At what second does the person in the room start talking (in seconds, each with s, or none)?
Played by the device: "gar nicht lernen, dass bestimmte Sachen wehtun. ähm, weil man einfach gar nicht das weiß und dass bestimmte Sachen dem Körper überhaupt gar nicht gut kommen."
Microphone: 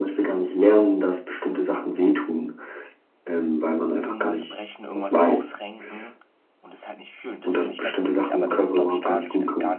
4.0 s